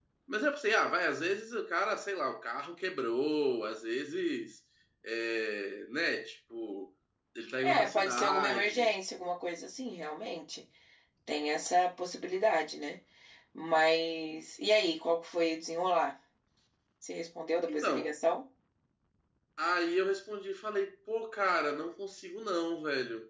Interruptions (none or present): present